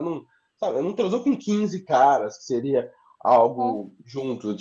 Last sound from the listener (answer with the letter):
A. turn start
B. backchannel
B